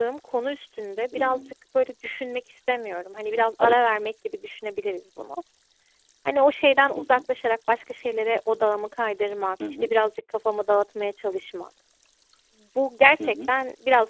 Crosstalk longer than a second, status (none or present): none